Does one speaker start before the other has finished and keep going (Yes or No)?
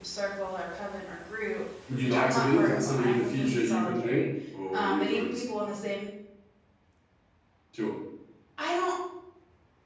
Yes